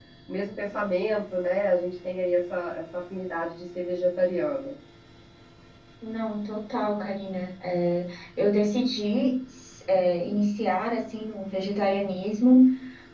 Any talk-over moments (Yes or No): No